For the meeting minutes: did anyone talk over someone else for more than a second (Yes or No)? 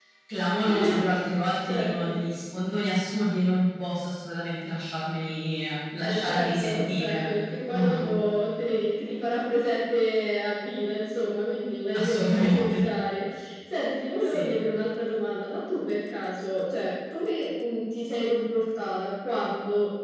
Yes